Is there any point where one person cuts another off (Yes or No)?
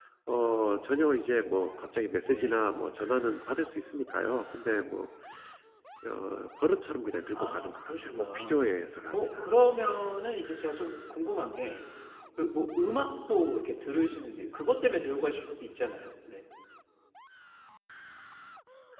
Yes